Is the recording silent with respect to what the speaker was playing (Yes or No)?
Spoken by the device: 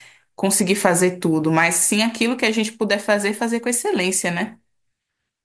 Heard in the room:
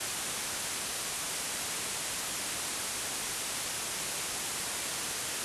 Yes